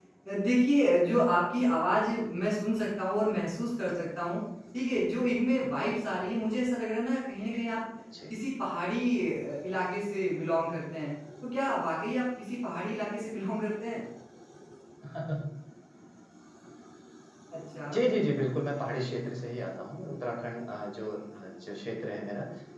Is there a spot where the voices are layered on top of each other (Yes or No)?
No